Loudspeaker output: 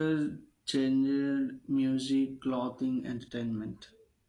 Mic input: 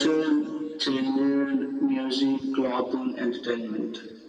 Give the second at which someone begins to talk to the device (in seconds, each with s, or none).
none